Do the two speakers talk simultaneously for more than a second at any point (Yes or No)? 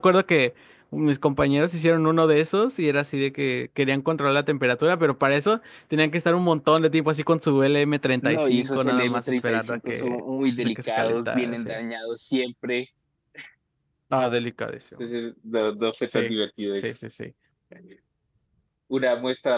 Yes